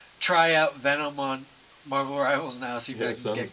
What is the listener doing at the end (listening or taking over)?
taking over